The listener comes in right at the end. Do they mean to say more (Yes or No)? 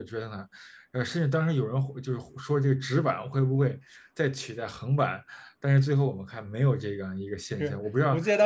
Yes